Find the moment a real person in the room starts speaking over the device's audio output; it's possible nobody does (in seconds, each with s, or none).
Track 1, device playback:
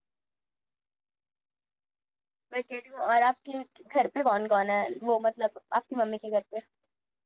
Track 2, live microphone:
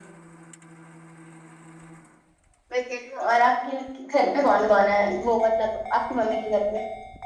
none